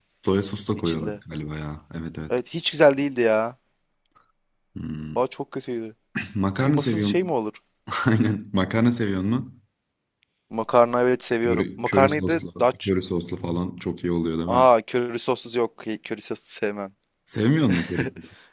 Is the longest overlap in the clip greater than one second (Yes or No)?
Yes